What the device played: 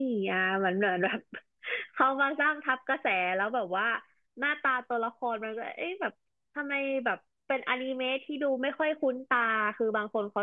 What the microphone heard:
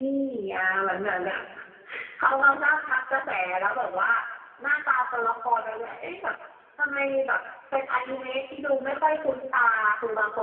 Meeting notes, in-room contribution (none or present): none